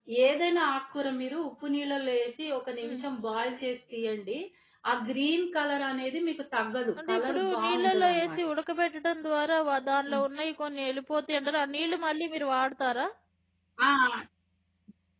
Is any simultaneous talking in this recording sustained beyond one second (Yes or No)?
Yes